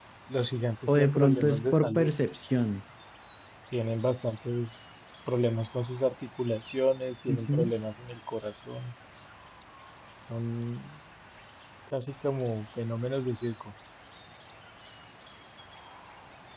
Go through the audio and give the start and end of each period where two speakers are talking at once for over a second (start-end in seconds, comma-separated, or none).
0.9-2.1